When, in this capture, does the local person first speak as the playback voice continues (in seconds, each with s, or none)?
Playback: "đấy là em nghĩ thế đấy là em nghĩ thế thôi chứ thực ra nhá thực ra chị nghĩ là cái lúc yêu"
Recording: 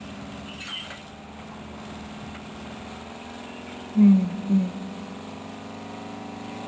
3.9 s